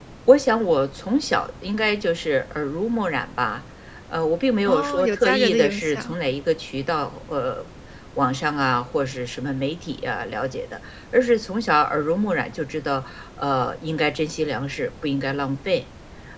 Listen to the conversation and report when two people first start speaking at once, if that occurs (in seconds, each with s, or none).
4.7 s